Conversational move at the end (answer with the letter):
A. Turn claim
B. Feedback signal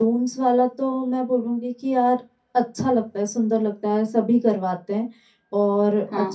B